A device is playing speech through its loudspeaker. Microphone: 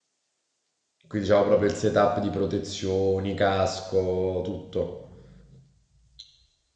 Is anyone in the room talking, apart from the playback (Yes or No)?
Yes